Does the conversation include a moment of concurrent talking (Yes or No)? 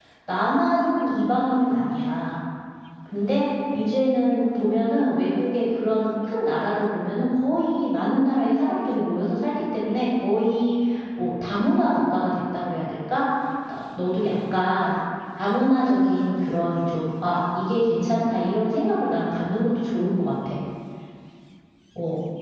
No